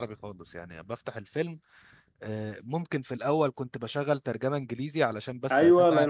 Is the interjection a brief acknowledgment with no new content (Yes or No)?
No